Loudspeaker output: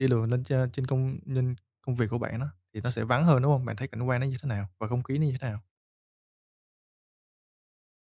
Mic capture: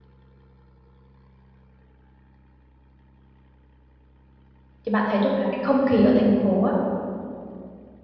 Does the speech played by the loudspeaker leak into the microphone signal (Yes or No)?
No